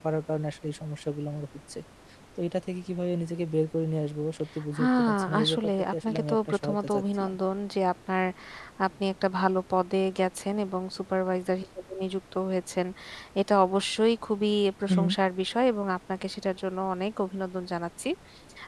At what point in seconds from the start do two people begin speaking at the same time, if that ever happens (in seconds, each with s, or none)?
4.8 s